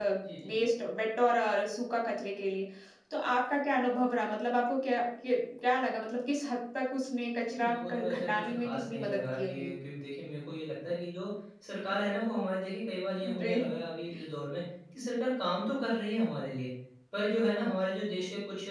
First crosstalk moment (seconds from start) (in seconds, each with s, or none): 7.5 s